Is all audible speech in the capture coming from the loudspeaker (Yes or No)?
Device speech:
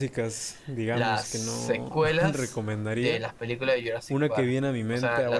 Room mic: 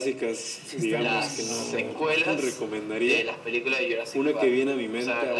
No